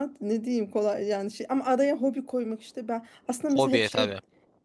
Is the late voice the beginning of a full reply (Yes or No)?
No